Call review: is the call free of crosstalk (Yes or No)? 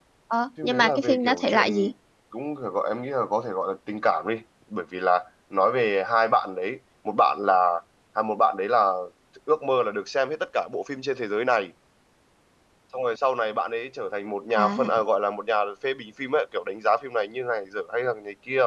No